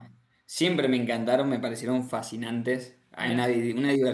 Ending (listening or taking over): listening